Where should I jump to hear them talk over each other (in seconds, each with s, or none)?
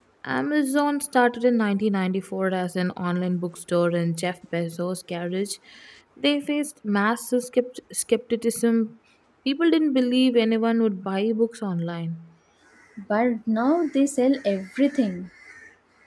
none